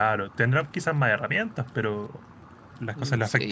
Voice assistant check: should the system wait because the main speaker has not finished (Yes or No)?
No